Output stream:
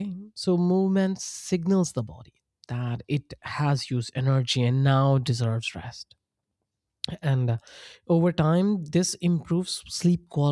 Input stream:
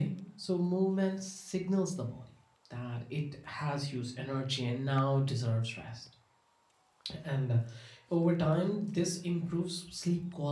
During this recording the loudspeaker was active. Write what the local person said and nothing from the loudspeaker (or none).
none